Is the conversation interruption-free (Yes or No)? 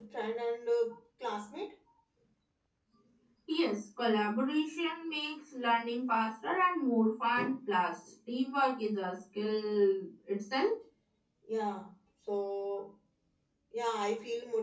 Yes